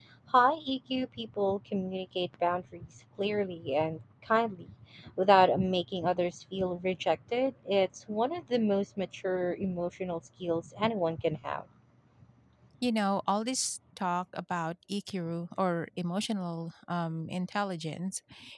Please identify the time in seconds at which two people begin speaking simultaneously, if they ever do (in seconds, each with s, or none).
none